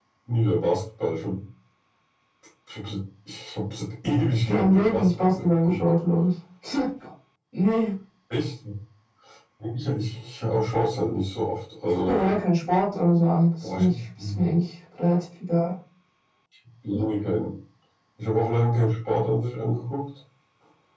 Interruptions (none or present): present